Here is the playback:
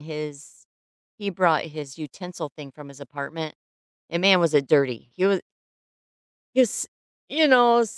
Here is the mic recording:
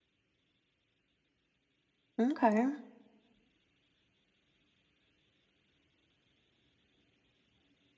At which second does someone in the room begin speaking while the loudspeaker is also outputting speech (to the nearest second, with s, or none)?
2 s